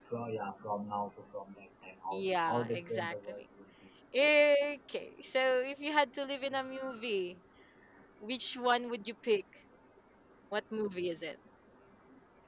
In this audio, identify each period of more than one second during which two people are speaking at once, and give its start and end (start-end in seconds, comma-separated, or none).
2.1-3.4